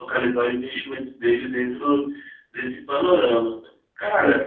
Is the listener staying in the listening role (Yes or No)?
No